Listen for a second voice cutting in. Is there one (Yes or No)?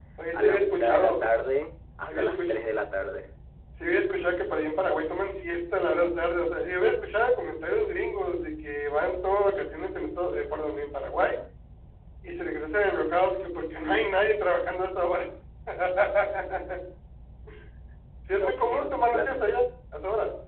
Yes